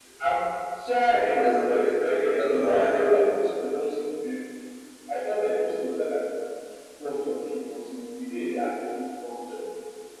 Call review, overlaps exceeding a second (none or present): present